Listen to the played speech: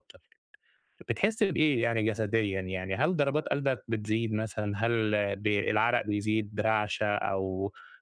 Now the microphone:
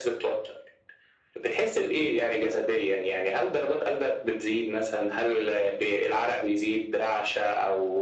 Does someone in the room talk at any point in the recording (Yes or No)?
No